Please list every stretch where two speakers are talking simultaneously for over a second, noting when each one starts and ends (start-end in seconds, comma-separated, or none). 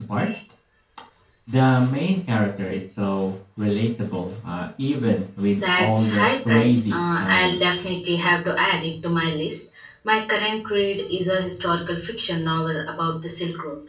5.6-7.6